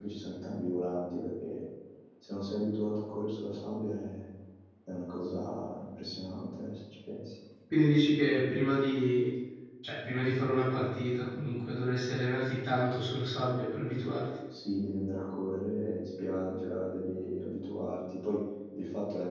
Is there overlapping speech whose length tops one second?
No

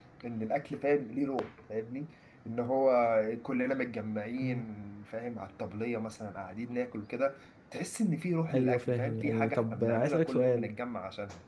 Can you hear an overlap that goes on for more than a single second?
Yes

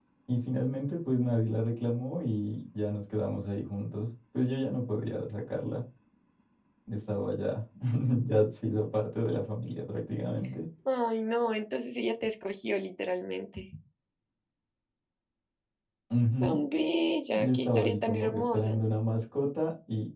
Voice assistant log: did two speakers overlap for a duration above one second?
Yes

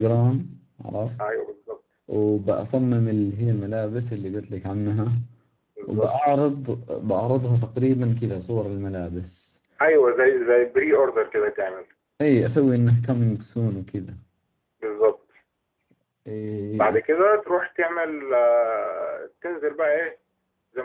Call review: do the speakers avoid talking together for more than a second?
Yes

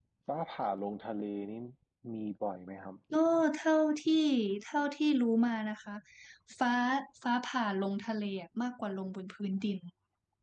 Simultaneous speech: No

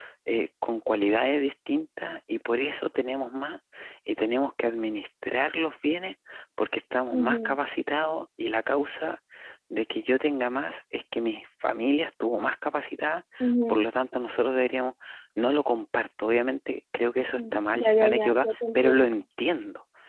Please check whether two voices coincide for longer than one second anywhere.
Yes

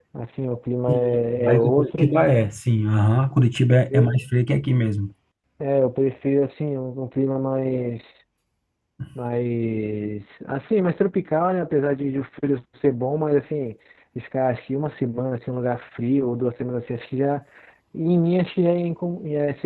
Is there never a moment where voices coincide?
No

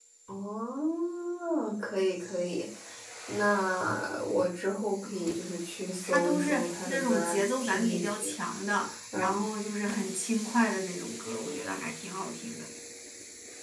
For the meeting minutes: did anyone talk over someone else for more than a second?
Yes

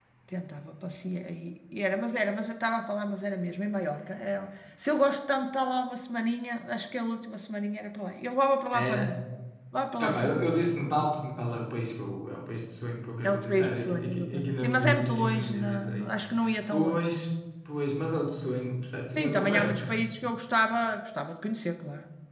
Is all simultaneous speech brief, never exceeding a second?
No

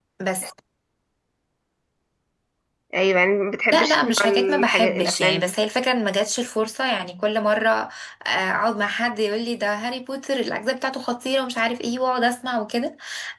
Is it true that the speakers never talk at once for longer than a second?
No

